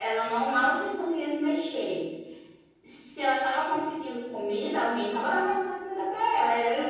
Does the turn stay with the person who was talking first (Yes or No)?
Yes